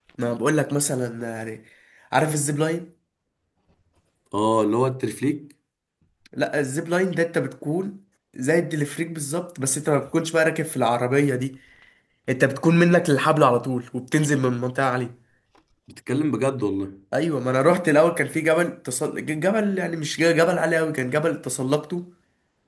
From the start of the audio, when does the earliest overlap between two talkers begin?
none

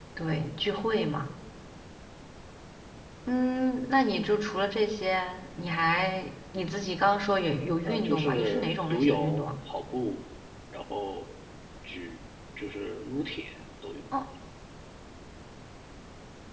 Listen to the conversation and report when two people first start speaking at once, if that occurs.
7.8 s

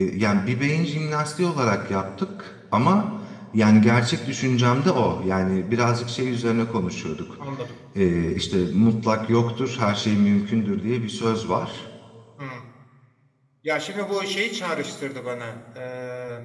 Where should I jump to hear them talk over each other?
none

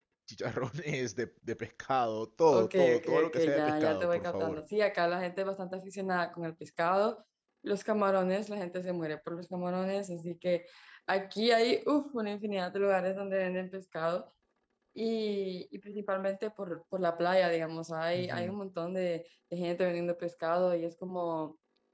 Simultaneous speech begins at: 2.5 s

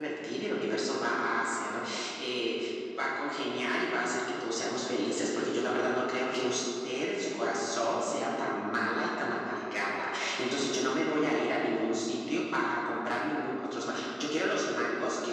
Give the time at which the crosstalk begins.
none

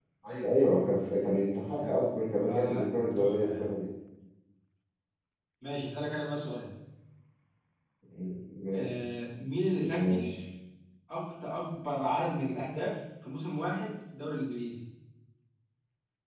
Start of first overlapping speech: 2.5 s

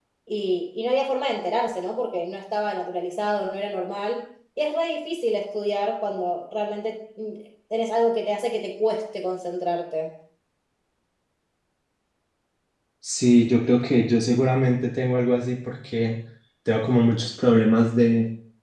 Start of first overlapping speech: none

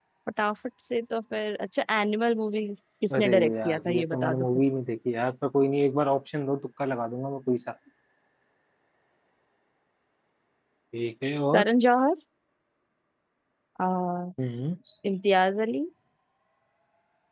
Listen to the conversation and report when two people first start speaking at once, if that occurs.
3.1 s

